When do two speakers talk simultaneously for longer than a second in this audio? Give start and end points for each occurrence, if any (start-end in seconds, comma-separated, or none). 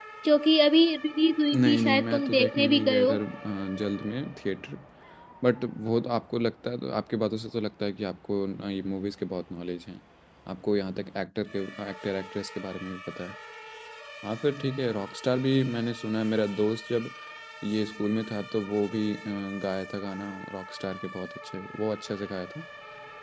1.5-3.2